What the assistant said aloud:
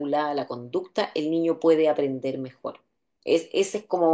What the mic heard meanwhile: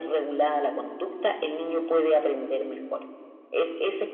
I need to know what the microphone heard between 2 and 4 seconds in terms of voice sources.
echo only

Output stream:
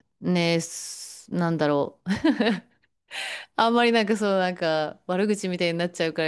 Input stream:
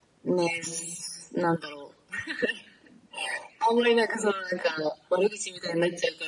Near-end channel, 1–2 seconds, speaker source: echo only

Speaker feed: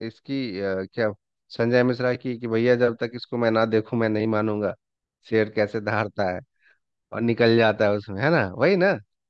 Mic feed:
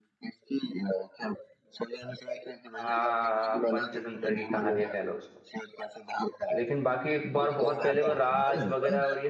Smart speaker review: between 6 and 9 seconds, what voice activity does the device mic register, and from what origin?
both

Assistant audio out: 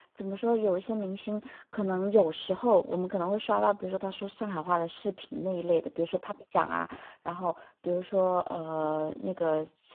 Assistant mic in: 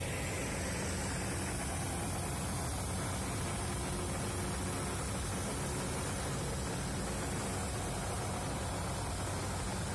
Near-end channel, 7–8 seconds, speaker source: neither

